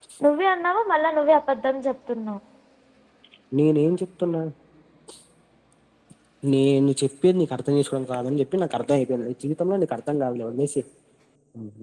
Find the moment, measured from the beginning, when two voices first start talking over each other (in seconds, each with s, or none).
none